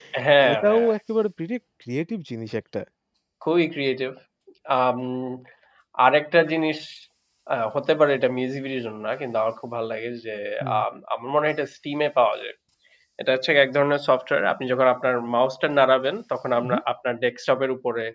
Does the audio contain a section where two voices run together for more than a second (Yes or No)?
No